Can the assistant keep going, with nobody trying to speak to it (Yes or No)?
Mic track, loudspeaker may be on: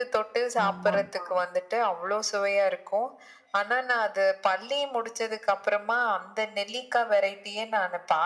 No